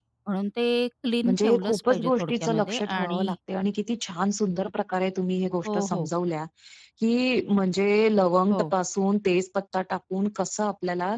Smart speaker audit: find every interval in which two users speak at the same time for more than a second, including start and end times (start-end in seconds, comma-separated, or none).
1.2-3.3